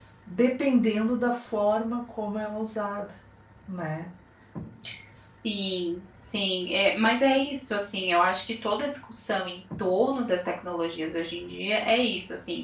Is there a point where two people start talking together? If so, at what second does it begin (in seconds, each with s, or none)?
none